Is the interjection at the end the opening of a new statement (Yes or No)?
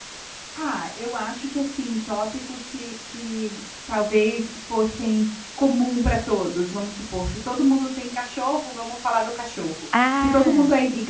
No